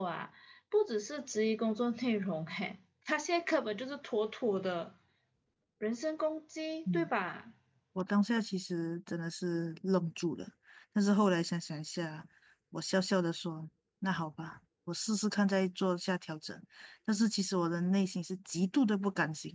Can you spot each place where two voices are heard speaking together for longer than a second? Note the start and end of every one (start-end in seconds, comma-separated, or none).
none